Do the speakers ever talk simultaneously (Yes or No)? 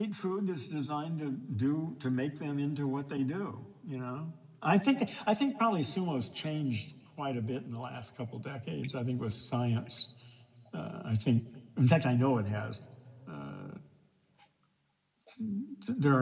No